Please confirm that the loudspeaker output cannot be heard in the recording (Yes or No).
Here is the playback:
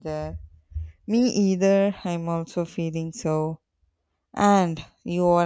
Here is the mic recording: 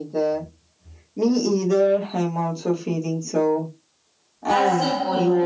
No